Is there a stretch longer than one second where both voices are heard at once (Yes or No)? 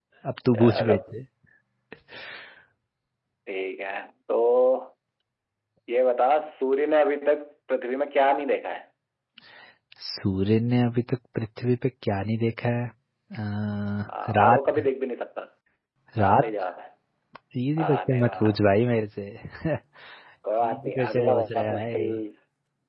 Yes